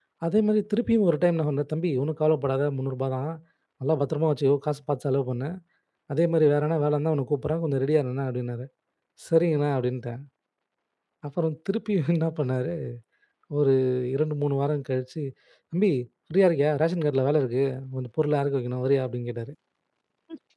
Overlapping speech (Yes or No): No